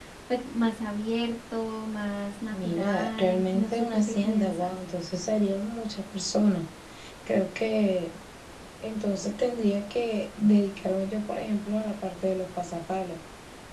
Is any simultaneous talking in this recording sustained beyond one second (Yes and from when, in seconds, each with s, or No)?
Yes, from 2.5 s